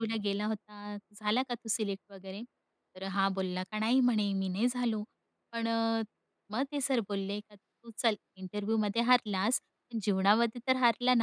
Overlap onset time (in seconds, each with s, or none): none